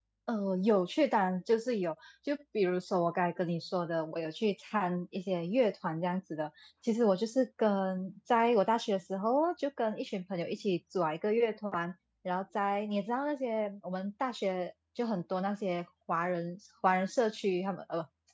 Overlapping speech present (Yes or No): No